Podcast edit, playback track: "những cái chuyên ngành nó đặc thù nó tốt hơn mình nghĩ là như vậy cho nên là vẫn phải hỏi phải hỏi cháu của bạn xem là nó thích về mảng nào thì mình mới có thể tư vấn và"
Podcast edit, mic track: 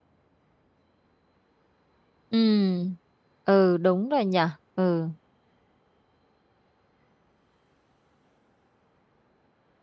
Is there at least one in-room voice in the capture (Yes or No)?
Yes